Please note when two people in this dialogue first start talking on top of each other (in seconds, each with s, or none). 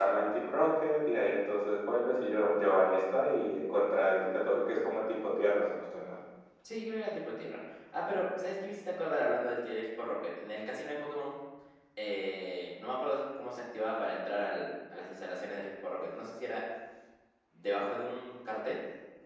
none